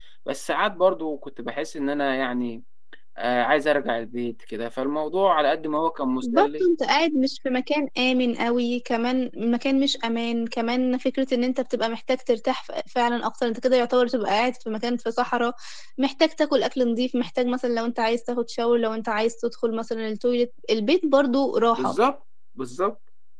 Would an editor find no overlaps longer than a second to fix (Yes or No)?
Yes